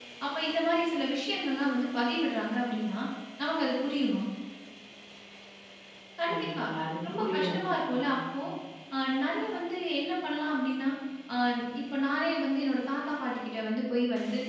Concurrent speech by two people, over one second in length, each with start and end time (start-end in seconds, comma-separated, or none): 7.1-8.4